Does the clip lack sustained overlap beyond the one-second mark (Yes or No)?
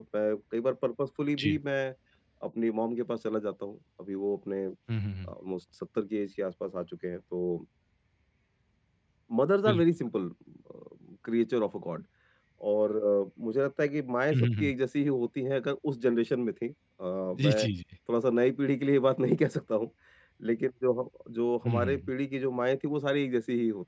Yes